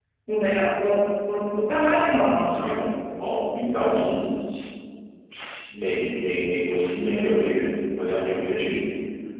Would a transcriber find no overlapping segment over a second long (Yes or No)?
Yes